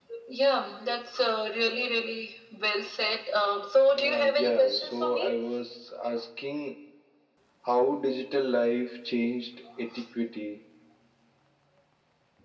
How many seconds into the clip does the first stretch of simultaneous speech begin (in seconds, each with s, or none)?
3.9 s